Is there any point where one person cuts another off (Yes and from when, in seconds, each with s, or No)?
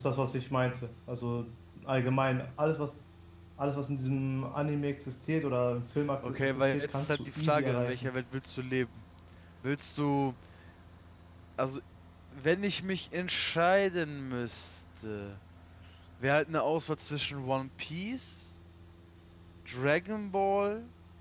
Yes, from 6.2 s